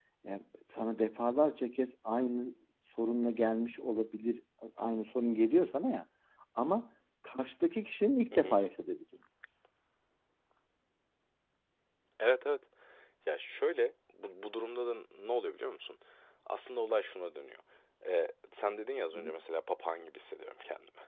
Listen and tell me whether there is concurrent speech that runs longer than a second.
No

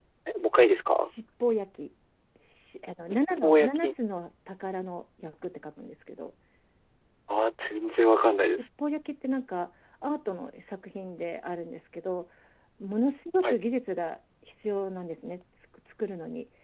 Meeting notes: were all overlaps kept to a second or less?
Yes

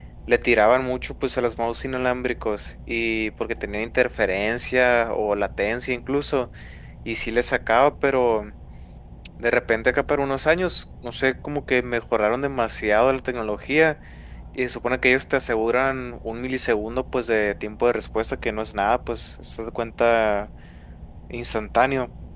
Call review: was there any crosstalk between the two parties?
No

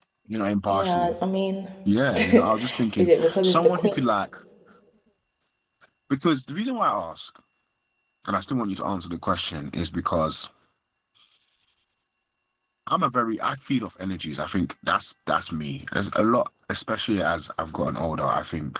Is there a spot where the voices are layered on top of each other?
Yes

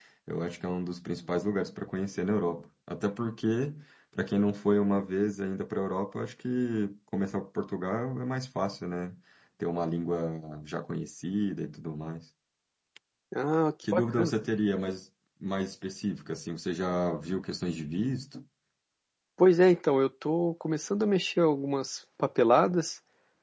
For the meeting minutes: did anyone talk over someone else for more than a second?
No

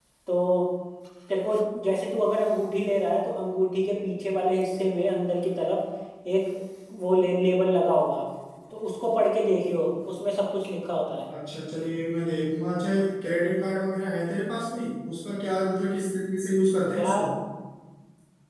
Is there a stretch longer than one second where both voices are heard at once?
No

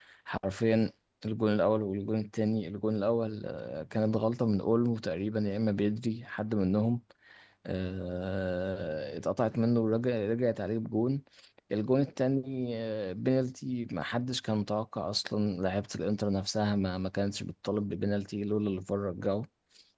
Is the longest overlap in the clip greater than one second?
No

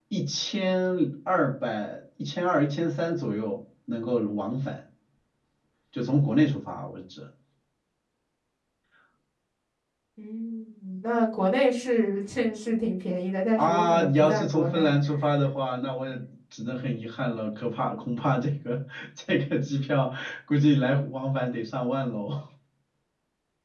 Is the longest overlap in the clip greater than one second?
Yes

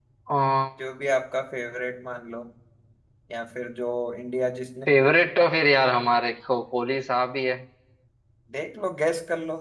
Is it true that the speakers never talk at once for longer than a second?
Yes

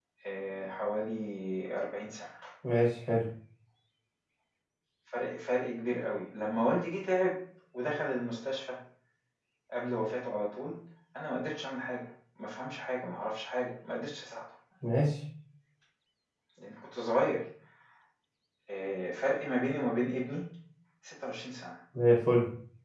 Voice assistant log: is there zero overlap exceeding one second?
Yes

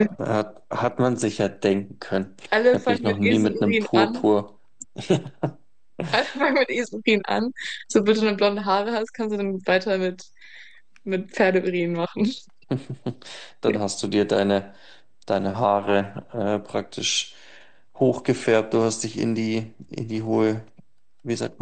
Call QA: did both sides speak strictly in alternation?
No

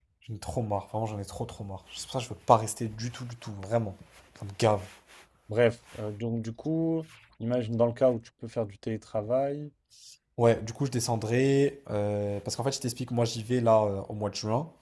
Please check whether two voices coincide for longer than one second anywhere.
No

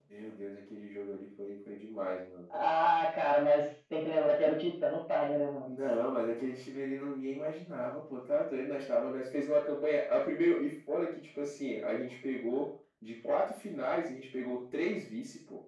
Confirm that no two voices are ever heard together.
Yes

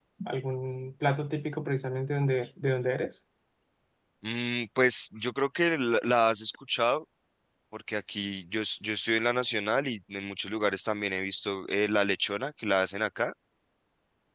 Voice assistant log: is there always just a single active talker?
Yes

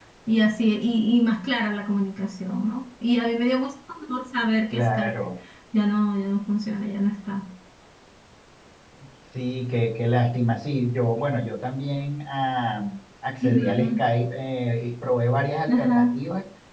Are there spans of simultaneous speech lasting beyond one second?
No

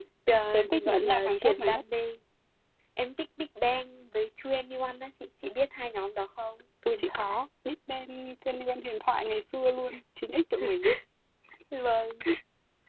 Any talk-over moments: Yes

